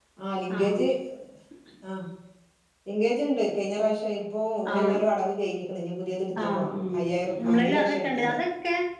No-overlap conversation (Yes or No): No